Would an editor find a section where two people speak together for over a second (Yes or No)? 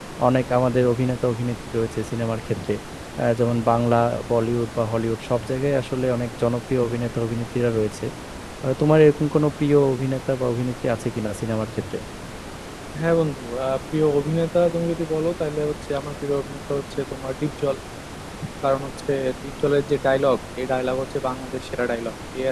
No